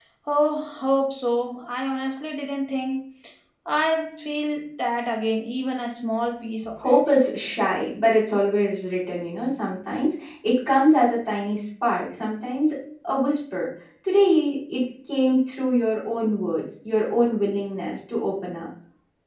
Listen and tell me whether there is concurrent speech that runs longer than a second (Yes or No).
No